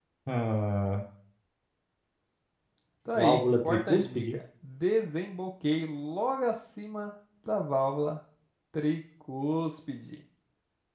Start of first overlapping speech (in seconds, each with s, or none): 3.1 s